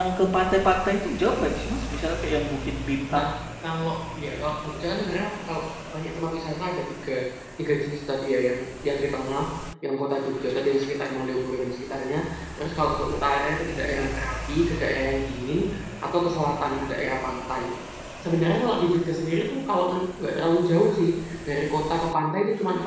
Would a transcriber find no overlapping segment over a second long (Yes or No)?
Yes